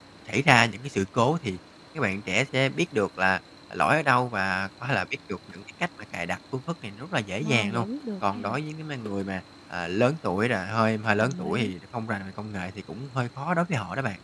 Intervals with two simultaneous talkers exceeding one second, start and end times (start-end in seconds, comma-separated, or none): none